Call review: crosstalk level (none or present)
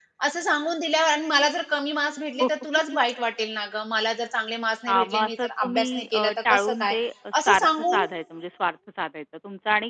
present